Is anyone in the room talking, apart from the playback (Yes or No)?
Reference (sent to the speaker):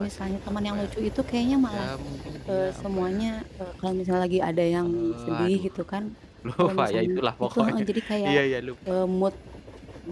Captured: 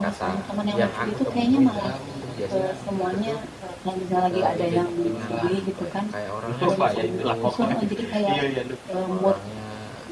Yes